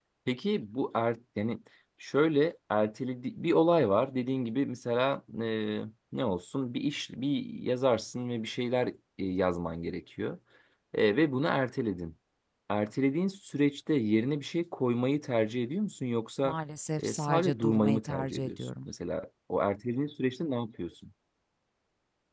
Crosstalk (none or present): present